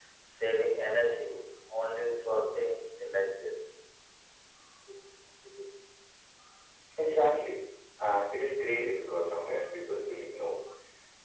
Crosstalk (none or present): none